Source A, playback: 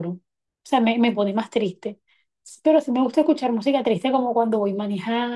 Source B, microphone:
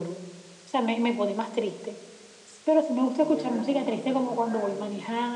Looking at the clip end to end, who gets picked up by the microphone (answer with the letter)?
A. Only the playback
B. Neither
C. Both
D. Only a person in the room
C